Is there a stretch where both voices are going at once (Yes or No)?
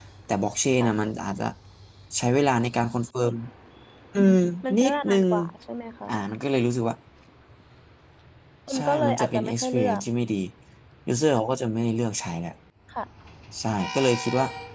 Yes